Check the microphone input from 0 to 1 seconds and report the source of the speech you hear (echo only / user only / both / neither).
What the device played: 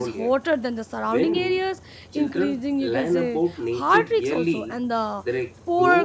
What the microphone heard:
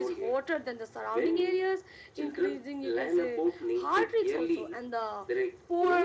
echo only